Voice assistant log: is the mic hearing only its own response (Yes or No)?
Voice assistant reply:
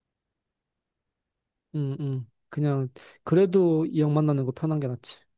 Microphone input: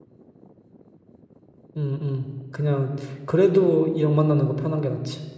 Yes